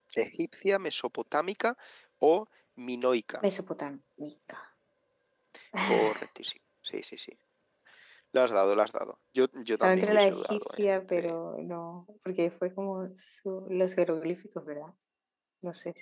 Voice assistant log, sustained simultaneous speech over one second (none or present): present